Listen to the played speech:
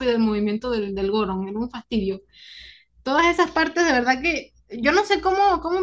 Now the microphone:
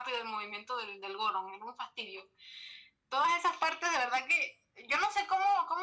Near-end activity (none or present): none